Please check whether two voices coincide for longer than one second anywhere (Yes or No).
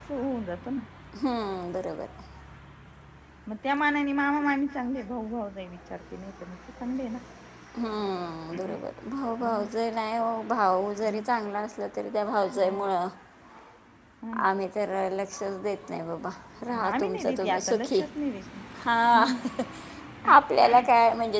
Yes